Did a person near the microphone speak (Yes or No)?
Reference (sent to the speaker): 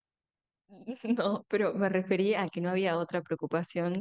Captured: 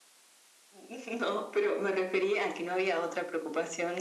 No